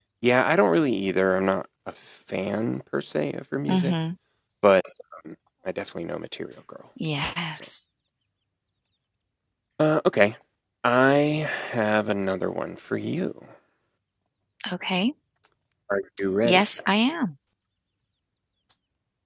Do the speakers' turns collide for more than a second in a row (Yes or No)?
No